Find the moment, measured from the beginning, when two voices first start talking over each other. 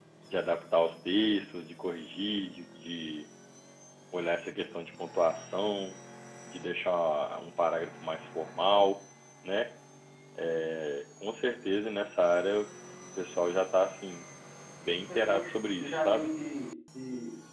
15.0 s

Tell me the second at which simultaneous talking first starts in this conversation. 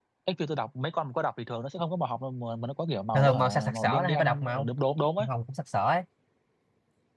3.1 s

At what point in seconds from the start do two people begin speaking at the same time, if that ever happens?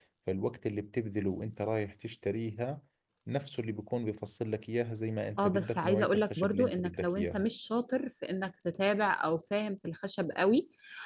5.4 s

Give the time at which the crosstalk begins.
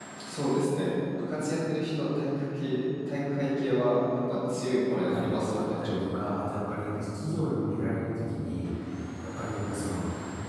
5.0 s

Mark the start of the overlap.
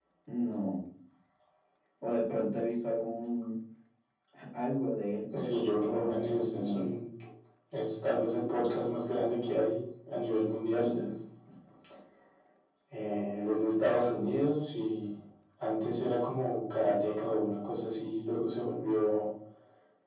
5.4 s

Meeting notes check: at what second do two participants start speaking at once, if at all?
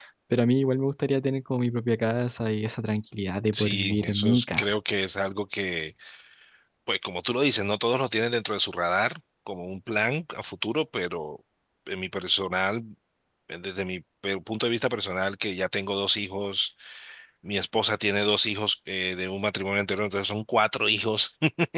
3.5 s

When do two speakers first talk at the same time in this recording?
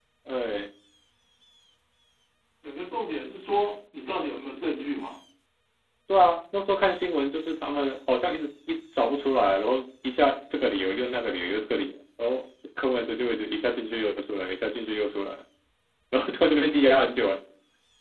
none

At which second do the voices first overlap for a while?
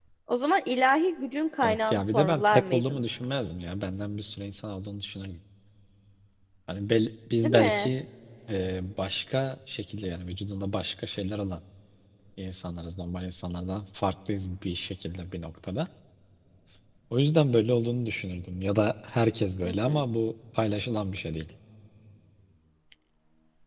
1.6 s

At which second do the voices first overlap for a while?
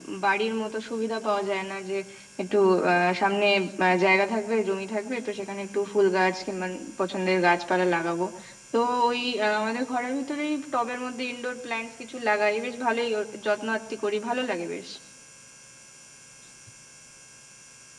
none

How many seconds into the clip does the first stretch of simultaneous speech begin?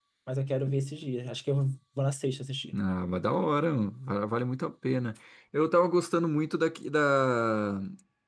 none

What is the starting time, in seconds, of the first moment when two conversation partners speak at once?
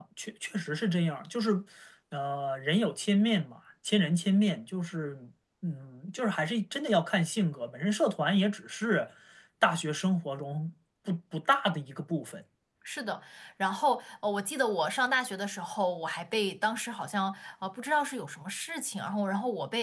none

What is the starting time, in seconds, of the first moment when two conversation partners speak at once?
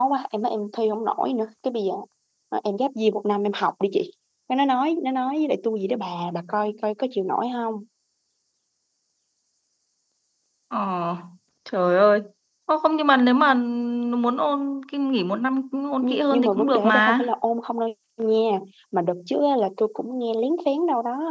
16.0 s

